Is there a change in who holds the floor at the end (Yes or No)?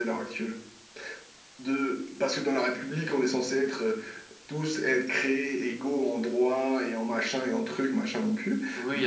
Yes